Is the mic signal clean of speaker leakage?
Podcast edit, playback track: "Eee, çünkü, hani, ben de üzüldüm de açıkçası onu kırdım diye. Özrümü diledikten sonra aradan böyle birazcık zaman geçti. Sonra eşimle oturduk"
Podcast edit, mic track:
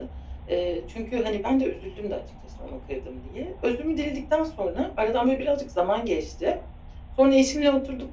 No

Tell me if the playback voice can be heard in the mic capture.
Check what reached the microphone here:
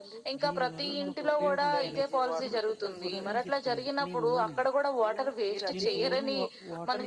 Yes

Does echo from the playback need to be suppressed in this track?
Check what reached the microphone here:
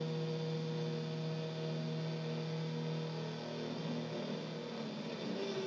No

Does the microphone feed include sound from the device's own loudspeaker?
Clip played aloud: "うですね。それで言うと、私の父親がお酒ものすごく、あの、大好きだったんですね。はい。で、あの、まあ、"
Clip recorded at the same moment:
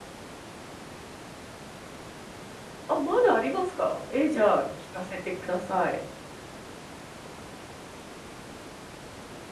No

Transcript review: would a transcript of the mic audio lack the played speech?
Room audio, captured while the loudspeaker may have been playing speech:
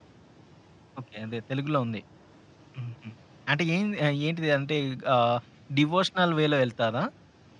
Yes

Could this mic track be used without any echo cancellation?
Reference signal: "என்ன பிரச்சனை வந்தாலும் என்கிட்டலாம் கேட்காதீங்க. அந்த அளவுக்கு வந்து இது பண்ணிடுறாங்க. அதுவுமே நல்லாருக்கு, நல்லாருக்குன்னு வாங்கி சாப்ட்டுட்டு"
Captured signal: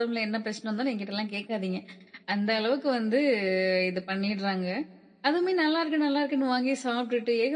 No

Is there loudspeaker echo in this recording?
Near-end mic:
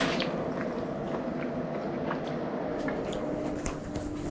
No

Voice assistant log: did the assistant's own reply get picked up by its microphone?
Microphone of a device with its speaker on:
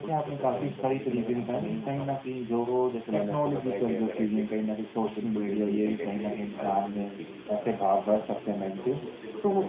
Yes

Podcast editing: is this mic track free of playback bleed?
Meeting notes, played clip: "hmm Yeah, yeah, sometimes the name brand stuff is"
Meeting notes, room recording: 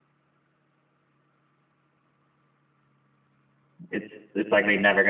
Yes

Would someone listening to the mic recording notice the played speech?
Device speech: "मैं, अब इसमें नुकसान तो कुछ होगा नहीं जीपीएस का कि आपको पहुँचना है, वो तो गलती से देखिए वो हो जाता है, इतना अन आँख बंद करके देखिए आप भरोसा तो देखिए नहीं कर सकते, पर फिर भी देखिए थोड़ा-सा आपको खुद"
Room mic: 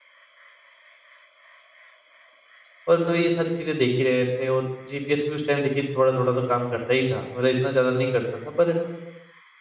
No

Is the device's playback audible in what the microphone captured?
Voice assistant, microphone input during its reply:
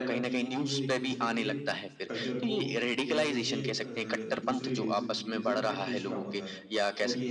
Yes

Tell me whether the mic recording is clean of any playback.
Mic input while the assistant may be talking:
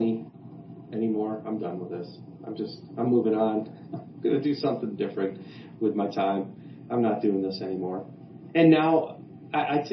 No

